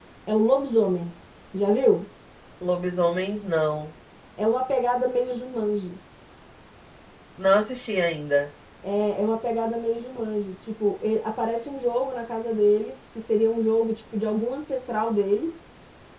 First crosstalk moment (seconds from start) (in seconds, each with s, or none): none